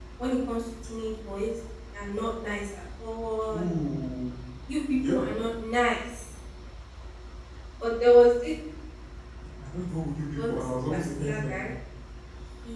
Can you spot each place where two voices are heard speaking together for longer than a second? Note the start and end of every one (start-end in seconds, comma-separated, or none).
10.4-11.6